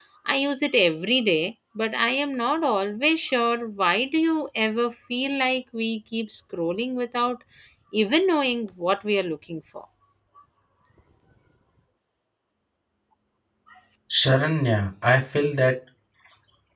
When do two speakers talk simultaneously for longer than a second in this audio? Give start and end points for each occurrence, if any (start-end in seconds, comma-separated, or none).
none